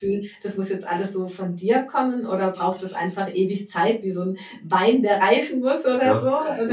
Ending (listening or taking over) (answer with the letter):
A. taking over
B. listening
A